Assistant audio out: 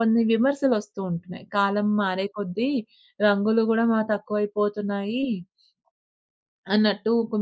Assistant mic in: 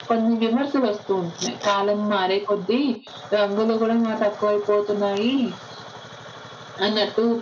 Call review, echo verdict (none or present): present